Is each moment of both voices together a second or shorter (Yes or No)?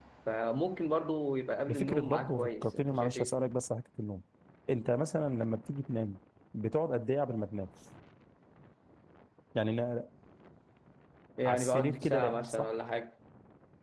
No